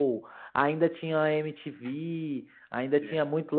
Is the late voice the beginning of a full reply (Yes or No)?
No